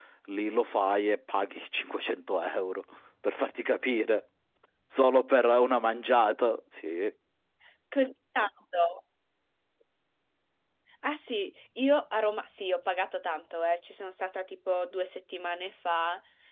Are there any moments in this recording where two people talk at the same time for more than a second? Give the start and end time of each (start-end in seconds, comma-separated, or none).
none